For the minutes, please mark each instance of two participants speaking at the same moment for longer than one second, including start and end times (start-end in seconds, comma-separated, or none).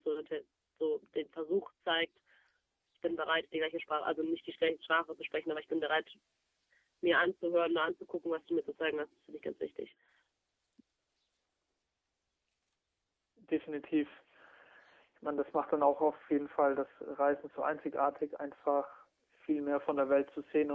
none